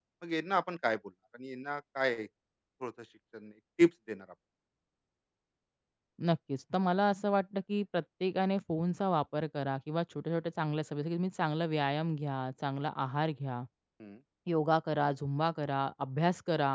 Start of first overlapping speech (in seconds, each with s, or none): none